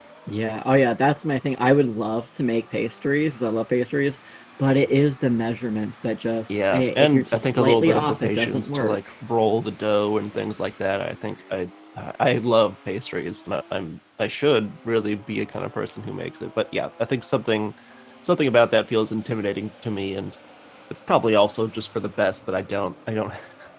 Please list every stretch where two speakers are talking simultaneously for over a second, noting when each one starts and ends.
6.5-9.0

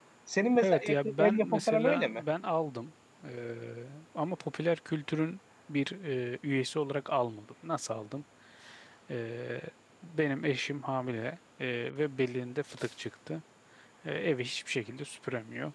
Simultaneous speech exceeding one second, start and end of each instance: 0.6-2.2

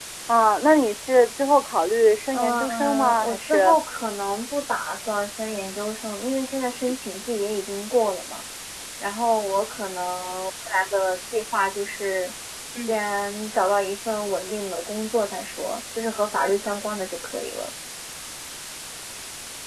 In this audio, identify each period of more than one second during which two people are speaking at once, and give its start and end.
2.3-3.8

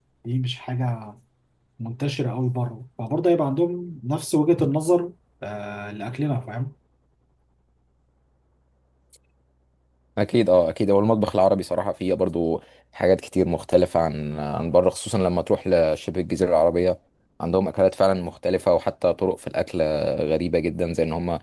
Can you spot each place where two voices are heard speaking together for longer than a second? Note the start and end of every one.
none

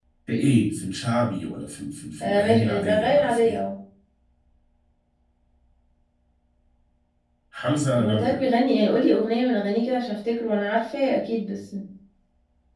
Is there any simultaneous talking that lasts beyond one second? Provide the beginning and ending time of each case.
2.2-3.6

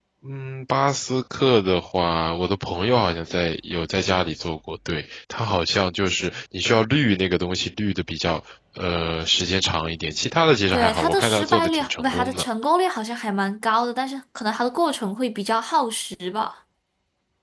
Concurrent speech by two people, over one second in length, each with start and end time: 10.7-12.5

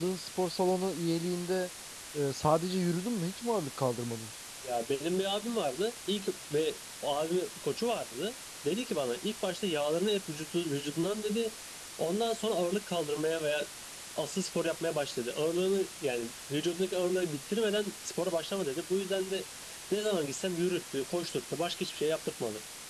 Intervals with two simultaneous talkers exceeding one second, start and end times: none

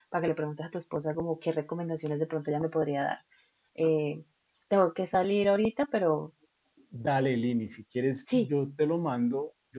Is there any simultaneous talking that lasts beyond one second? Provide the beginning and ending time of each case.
none

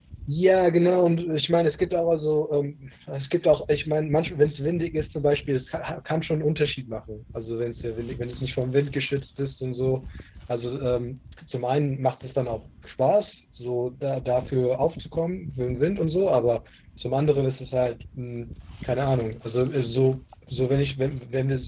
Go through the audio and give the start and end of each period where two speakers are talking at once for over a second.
none

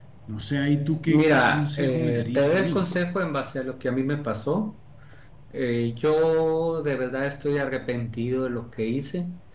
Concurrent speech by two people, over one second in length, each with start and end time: 1.1-2.8

